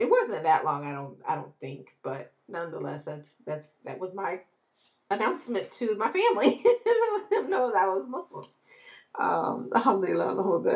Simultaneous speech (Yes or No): No